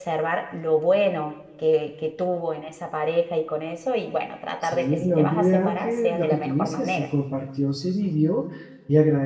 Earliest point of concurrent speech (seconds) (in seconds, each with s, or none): 4.6 s